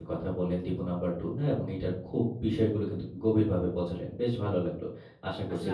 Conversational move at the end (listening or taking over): taking over